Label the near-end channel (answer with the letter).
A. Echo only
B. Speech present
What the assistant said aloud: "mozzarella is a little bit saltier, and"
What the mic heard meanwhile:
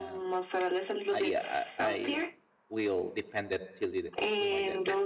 B